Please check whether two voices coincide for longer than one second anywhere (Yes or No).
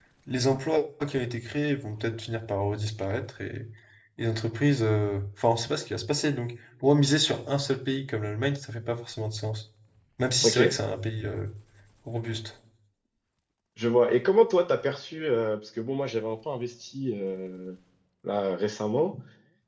No